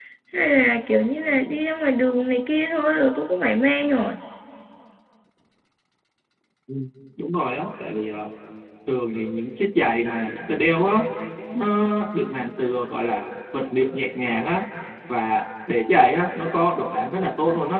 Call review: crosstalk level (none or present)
none